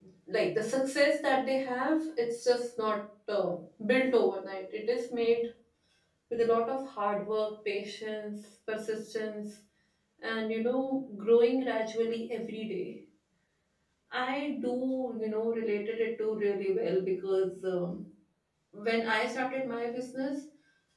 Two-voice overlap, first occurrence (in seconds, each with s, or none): none